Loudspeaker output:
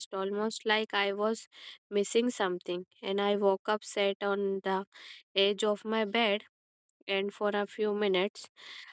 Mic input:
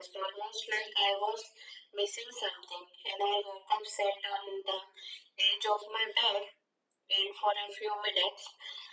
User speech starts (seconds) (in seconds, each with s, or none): none